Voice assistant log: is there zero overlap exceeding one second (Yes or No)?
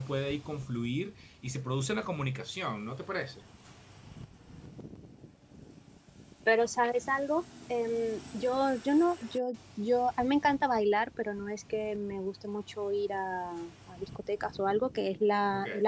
Yes